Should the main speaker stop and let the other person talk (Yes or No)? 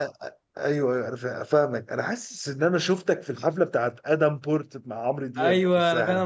Yes